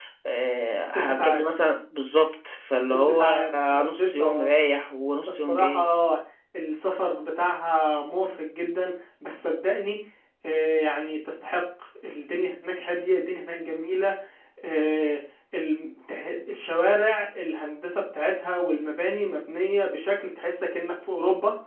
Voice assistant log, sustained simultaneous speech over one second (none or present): present